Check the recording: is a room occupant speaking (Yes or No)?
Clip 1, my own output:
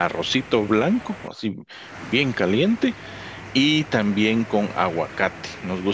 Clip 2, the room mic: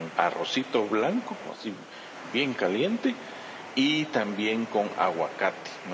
No